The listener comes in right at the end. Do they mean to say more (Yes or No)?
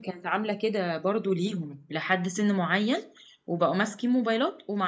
No